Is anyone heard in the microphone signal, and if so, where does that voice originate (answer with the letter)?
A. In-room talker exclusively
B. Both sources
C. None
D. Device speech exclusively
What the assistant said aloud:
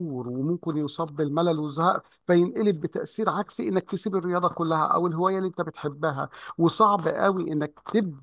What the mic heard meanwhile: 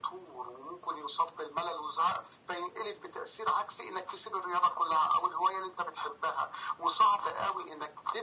D